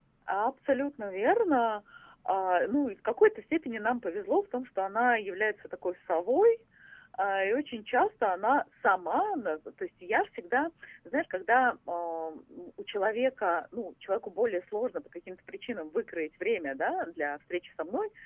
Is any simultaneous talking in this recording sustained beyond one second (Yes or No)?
No